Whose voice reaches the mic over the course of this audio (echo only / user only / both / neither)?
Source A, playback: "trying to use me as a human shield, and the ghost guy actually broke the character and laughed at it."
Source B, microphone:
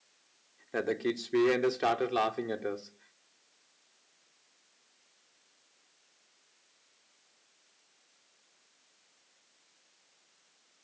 user only